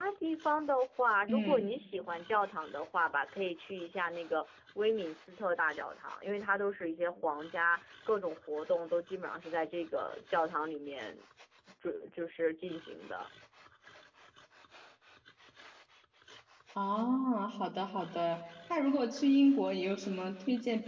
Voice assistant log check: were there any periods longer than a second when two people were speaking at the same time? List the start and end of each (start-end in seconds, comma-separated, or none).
none